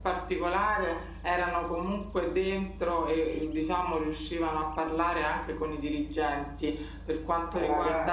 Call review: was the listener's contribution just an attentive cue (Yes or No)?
Yes